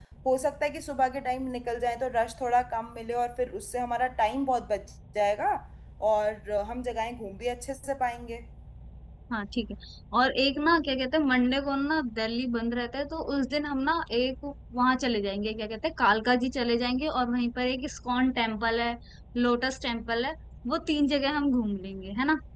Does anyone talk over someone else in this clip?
No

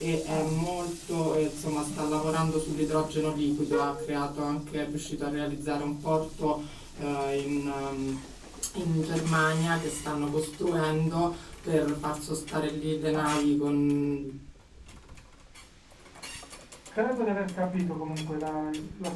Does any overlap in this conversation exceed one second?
No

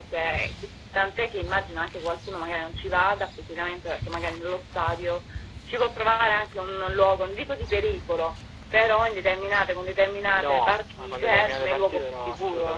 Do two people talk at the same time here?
Yes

